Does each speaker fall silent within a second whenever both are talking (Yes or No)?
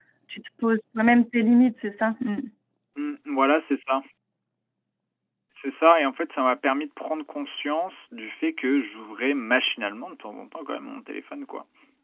Yes